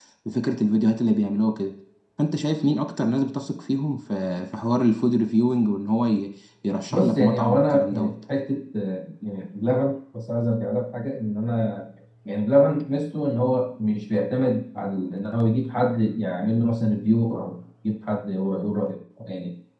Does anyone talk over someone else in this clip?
Yes, from 6.9 s

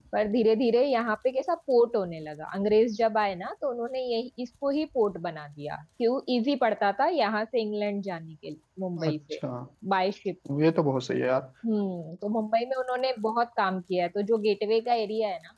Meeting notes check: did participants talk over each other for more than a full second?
No

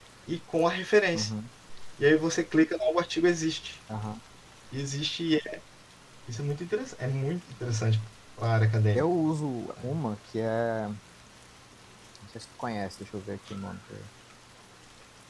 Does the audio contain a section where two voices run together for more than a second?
No

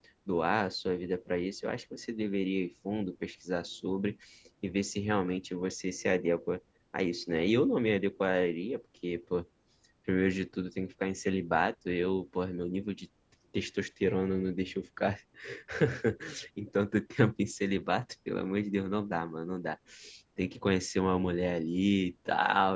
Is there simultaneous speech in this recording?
No

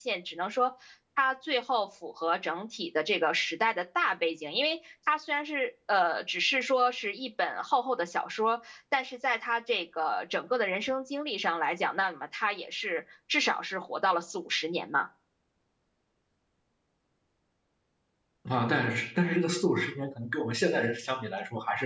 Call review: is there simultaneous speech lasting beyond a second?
No

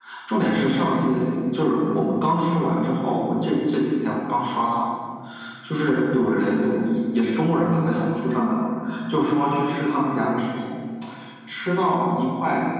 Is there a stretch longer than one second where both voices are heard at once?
No

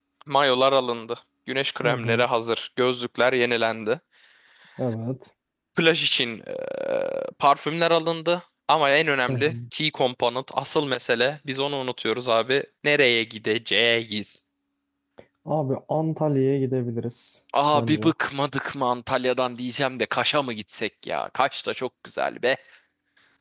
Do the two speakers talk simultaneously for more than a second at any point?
No

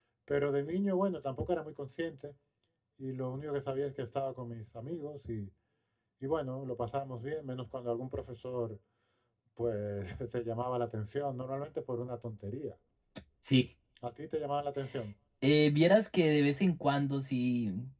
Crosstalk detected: No

